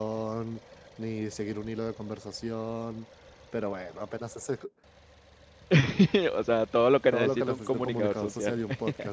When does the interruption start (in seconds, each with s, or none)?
7.1 s